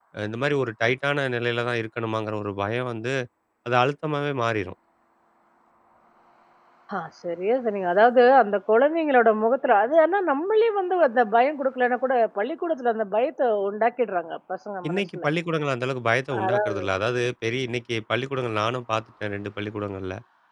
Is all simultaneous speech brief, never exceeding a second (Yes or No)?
Yes